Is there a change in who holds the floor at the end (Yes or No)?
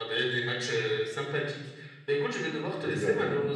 No